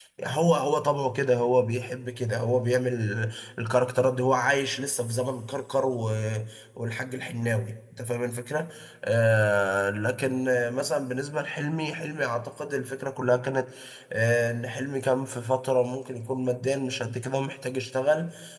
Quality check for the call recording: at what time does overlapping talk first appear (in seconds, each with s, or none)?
none